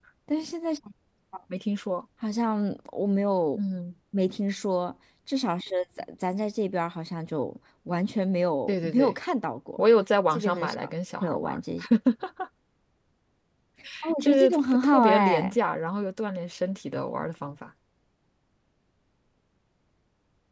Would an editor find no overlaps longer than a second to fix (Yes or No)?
No